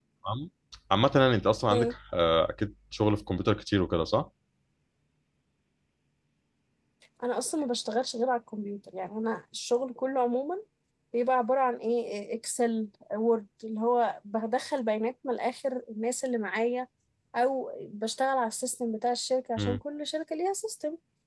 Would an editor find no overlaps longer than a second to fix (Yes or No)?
Yes